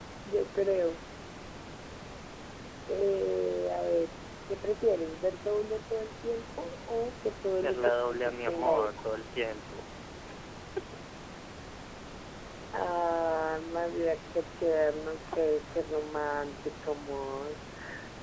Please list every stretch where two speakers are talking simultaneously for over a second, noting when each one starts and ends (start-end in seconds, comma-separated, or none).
7.6-9.1